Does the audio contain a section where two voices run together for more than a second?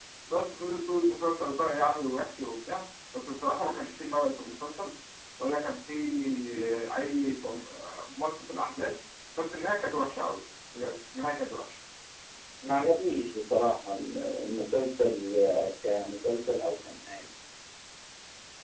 No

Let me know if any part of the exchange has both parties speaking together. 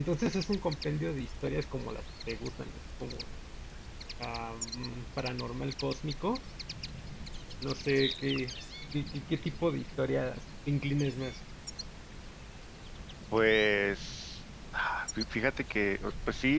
No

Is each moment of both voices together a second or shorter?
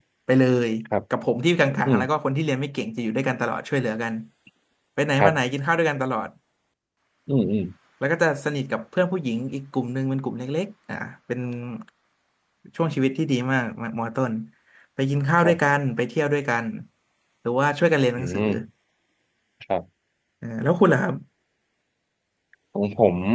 Yes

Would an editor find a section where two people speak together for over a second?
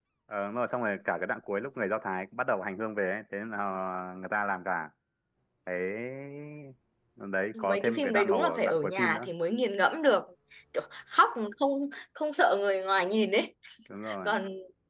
Yes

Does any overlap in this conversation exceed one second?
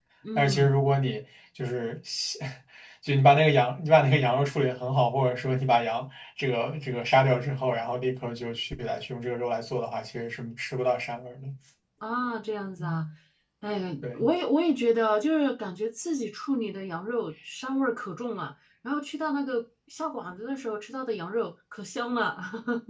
No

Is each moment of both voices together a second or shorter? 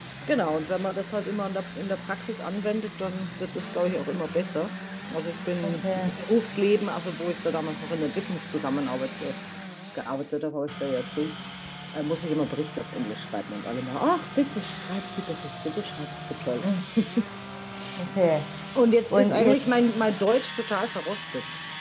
Yes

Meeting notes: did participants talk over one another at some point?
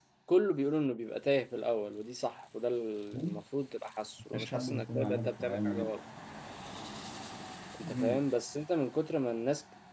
Yes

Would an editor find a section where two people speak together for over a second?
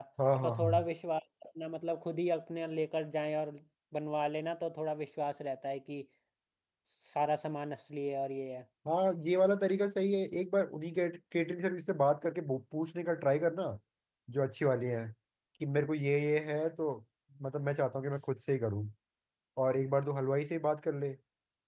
No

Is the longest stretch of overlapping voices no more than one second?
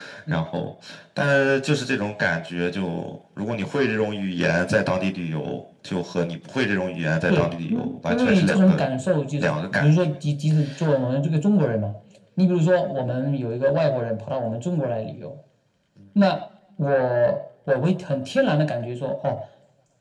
No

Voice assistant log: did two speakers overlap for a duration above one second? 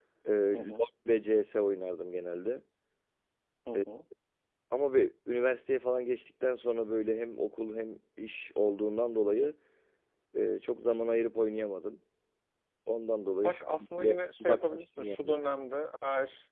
Yes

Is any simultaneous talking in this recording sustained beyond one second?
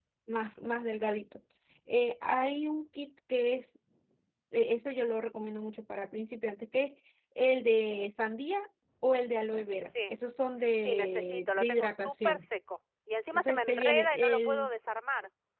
Yes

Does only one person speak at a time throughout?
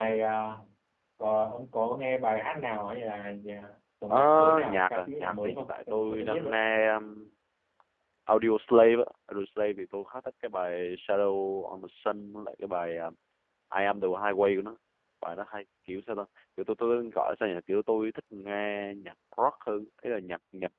No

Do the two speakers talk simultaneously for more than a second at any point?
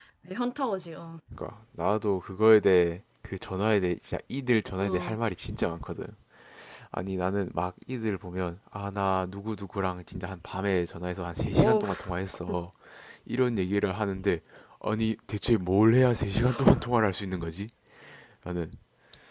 No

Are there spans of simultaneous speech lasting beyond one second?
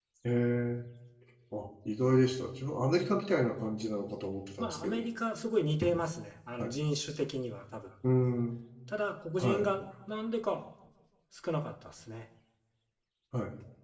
No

